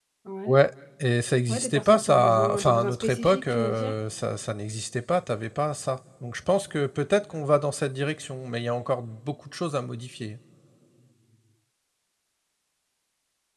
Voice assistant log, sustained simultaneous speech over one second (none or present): present